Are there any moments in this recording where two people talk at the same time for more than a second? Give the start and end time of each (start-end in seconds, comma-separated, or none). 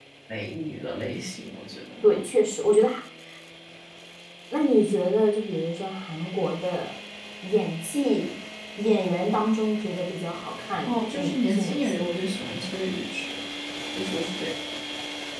10.8-12.1